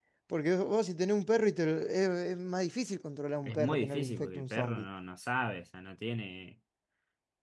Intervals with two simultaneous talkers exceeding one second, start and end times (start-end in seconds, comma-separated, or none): 3.4-4.9